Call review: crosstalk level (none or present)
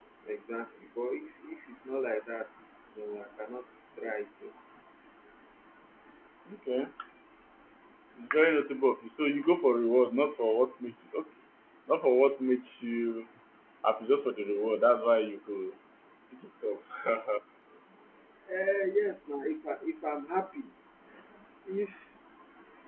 none